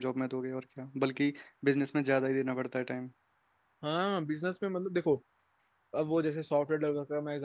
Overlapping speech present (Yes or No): No